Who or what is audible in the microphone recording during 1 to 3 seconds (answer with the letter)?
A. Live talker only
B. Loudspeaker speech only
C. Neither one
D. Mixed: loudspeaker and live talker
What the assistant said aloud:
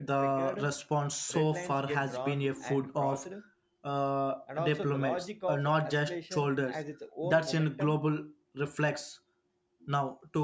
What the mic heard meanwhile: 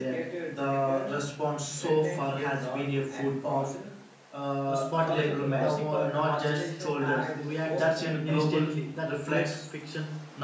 B